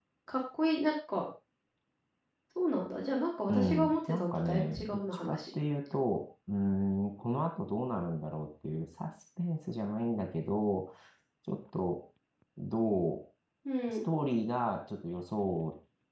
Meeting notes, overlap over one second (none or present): present